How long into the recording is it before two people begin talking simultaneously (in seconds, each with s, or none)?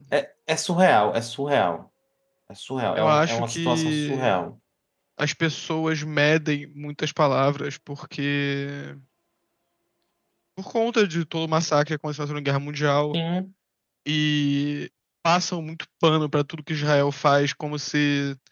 3.0 s